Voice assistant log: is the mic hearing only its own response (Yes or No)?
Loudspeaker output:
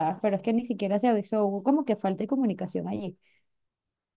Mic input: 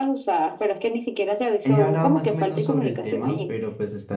No